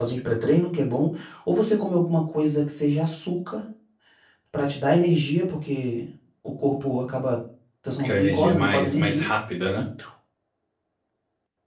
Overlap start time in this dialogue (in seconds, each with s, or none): 8.0 s